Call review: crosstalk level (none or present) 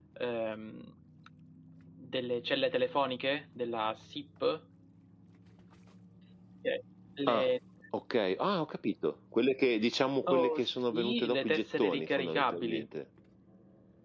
present